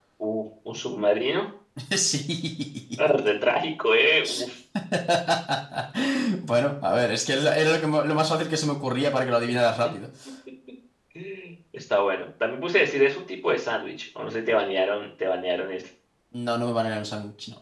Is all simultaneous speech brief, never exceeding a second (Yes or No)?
Yes